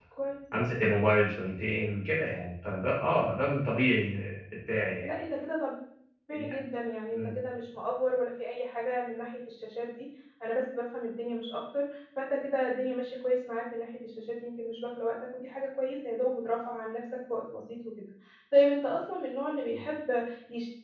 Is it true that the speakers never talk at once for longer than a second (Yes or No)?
Yes